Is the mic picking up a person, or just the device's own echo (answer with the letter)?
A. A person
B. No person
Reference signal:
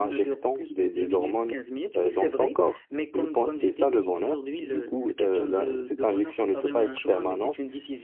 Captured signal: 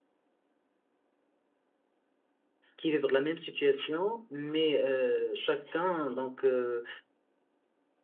A